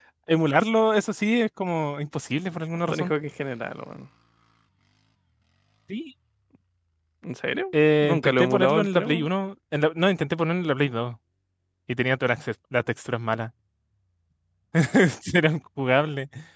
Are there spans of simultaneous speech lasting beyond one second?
Yes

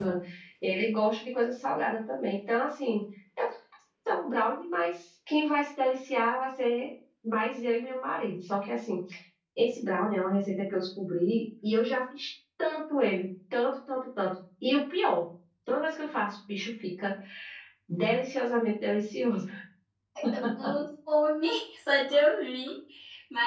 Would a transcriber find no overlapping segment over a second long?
Yes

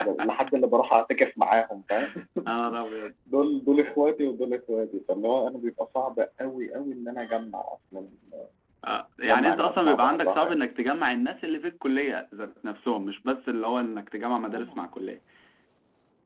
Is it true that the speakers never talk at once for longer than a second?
No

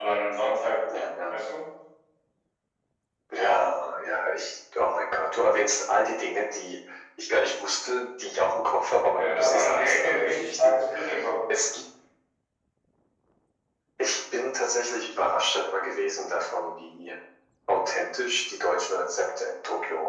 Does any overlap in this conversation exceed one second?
Yes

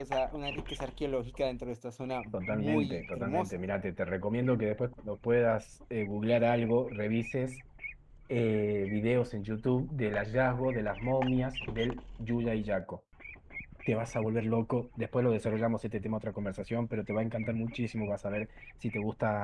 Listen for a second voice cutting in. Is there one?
Yes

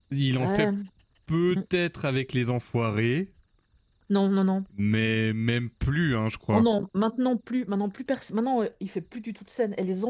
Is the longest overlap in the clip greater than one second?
No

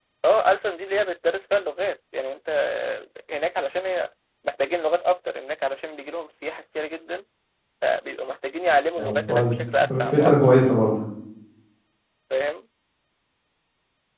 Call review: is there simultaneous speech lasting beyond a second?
Yes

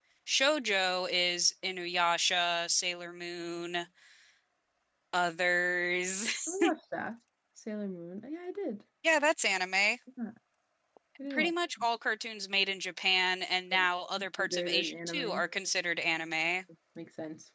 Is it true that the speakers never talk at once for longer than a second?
No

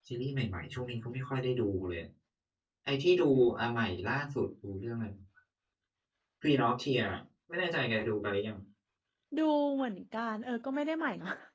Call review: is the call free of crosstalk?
Yes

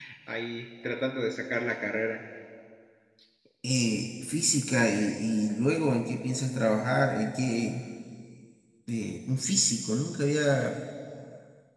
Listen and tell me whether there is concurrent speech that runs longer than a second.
No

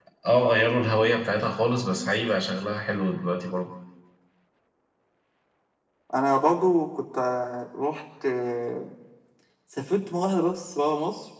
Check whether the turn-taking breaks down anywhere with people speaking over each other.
No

